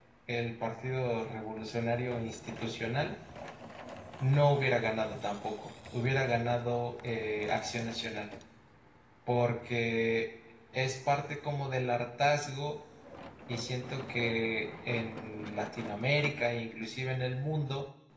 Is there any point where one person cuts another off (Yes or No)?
No